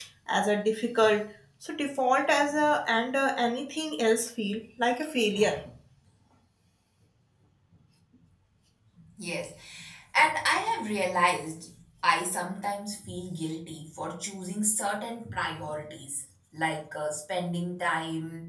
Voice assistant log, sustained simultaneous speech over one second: none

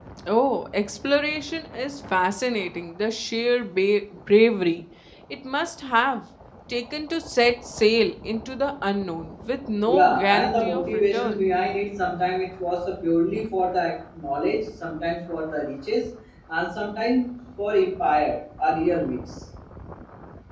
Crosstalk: present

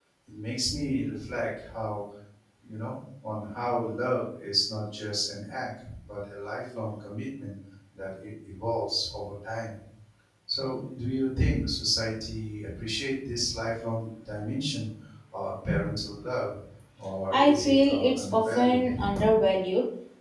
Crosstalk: present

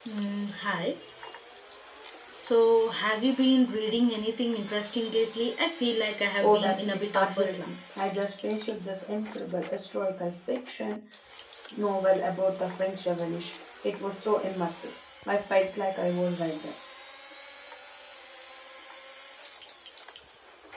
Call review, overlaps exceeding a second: present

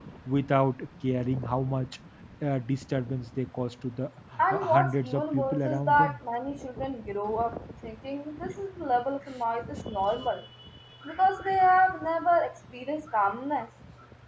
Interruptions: present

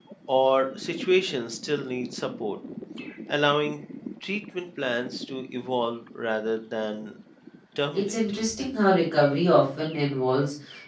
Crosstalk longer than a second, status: none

